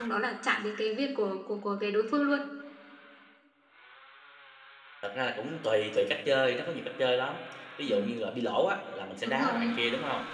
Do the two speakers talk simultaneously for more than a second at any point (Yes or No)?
No